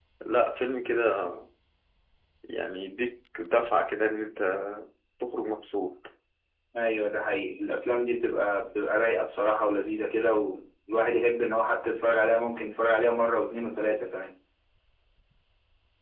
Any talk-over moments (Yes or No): No